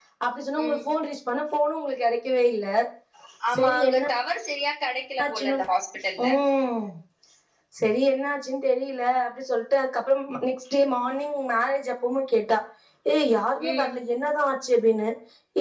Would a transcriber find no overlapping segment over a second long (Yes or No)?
Yes